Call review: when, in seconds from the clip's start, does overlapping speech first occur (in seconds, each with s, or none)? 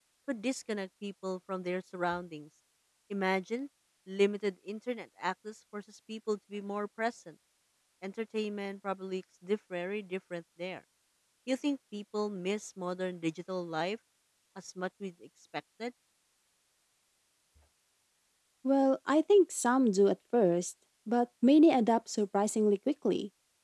none